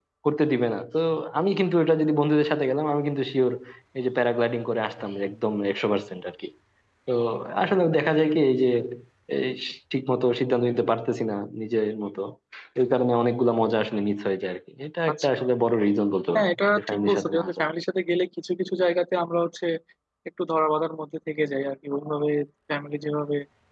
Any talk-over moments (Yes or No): Yes